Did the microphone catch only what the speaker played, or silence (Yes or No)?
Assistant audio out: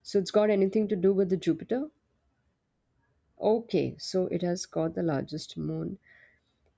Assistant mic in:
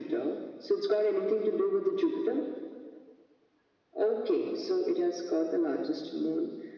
Yes